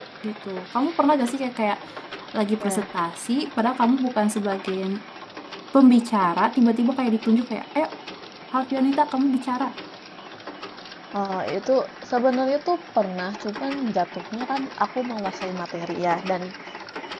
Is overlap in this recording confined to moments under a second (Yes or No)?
Yes